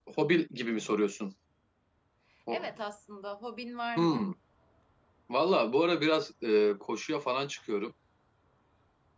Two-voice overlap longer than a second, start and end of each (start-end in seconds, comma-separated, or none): none